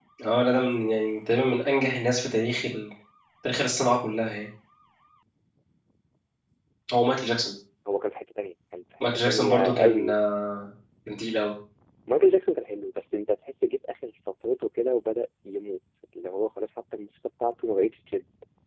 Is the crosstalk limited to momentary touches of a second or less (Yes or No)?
No